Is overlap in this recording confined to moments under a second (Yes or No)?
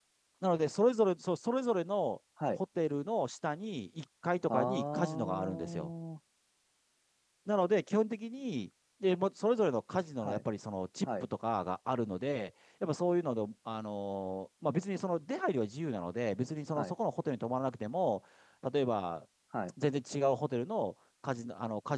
No